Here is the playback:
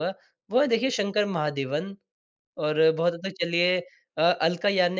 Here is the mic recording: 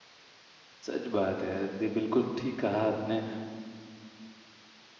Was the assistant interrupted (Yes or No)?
Yes